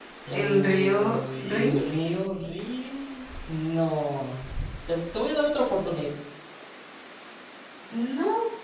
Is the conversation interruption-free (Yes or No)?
No